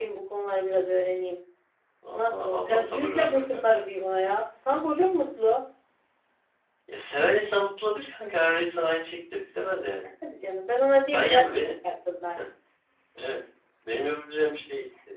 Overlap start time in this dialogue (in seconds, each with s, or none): 2.1 s